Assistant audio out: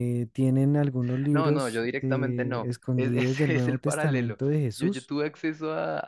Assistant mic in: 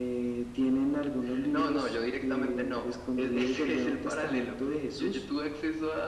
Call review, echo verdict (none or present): present